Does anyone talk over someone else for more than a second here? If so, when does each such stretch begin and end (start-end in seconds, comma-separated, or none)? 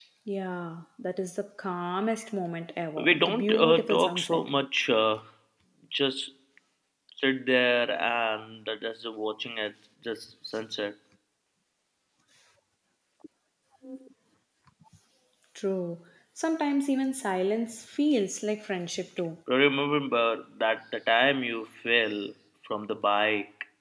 3.0-4.4